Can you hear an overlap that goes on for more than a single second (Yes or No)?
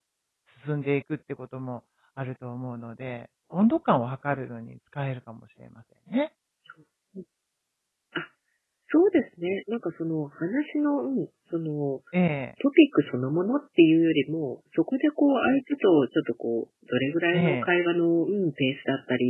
No